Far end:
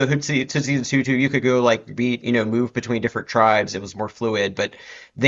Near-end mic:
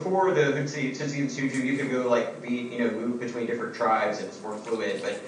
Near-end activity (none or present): none